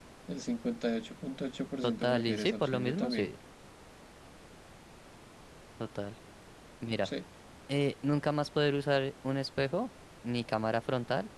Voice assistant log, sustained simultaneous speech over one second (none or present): present